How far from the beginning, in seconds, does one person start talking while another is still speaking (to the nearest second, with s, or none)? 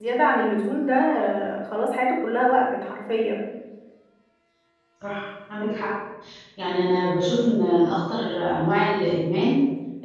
none